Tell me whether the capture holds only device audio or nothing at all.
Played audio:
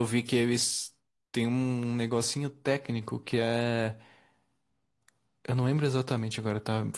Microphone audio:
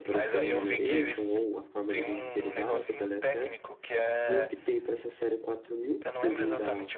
No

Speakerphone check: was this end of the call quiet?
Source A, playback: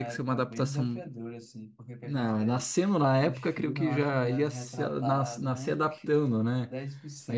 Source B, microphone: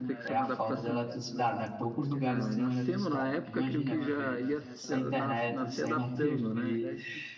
No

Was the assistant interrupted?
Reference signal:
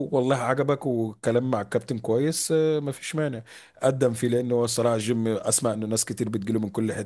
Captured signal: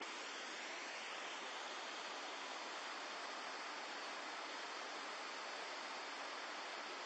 No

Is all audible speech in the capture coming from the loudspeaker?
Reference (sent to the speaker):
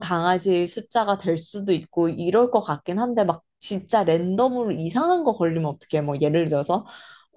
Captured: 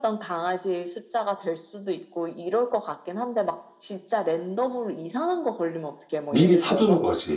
No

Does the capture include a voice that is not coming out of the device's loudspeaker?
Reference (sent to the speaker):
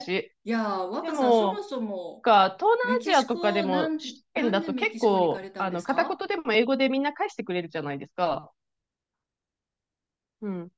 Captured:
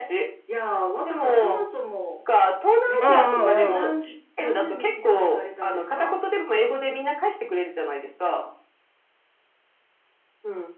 Yes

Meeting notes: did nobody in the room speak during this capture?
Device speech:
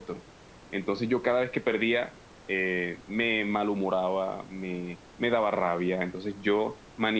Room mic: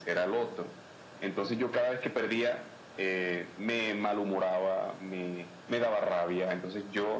Yes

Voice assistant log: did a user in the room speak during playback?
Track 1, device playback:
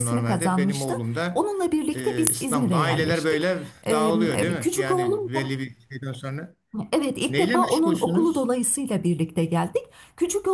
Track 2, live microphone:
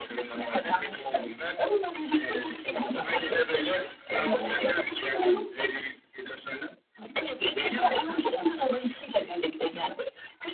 No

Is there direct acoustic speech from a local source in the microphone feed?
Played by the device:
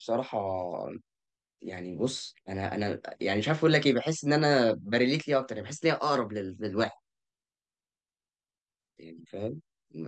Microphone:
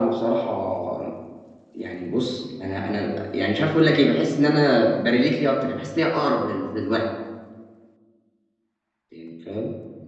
No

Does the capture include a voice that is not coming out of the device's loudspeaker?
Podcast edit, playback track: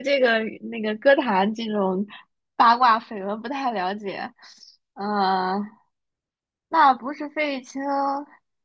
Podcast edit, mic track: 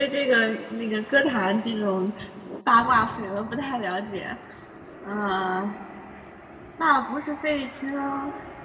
No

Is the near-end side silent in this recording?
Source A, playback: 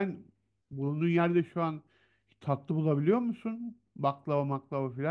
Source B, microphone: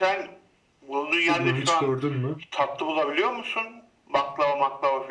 No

